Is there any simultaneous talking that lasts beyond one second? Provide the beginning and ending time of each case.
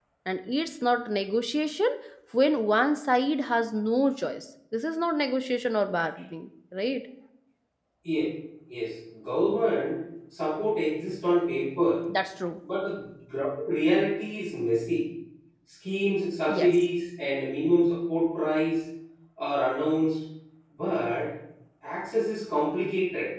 none

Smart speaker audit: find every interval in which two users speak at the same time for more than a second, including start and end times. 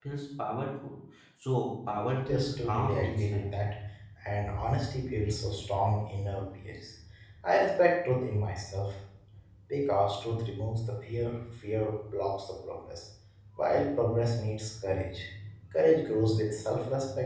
2.3-3.5

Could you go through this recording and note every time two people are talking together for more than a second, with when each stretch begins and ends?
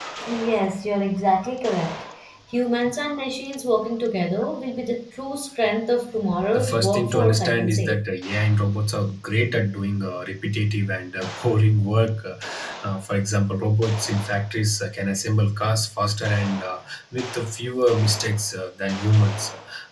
6.5-8.0

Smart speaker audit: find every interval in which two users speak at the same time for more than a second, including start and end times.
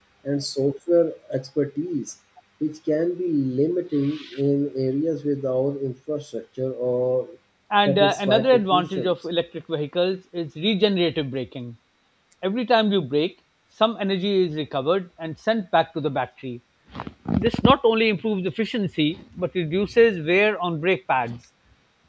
7.9-9.1

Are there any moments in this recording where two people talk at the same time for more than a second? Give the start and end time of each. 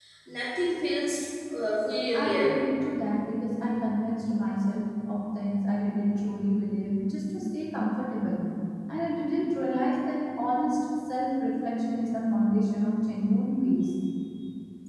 none

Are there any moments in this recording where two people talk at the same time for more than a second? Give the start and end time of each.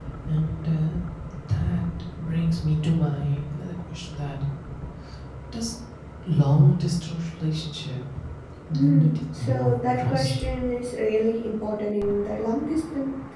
8.7-10.4

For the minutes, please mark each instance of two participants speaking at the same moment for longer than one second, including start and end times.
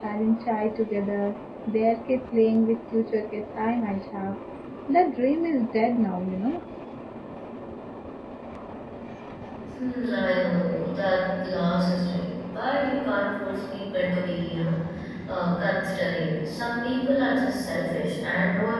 none

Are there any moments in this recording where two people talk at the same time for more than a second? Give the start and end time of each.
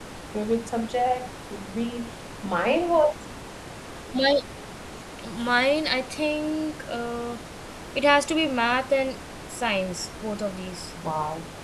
none

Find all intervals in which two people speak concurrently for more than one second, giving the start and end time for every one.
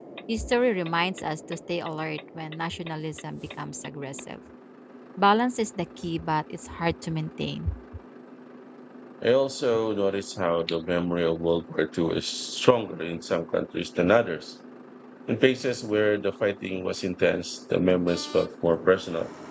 none

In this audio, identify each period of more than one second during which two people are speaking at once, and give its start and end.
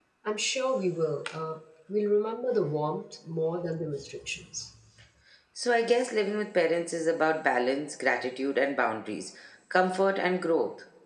none

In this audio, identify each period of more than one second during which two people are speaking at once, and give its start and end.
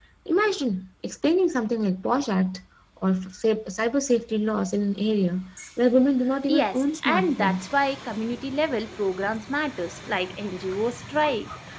6.5-7.7

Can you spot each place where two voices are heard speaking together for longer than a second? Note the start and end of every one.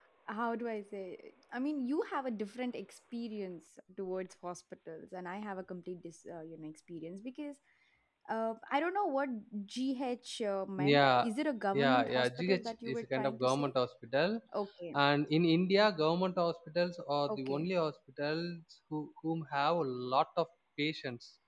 11.8-13.7

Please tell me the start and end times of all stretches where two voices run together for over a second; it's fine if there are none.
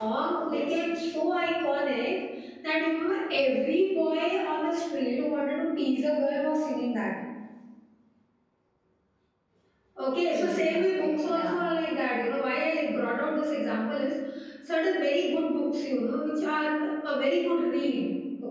10.3-11.5

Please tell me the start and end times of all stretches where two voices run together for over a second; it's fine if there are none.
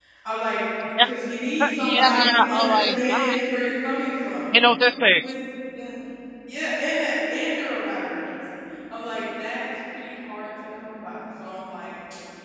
1.6-3.4

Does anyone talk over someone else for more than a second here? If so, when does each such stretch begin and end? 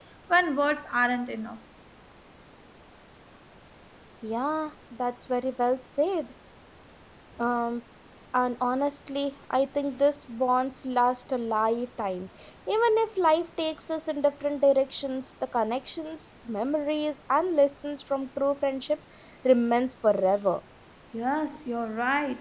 none

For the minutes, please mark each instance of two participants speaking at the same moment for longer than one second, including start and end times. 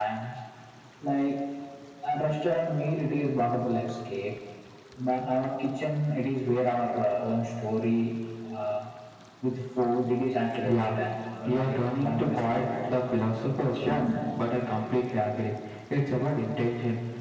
11.5-13.0

